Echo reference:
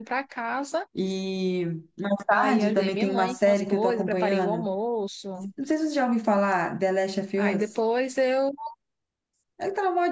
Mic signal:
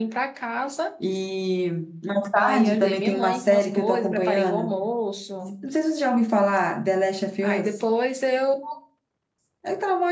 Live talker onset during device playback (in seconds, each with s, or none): none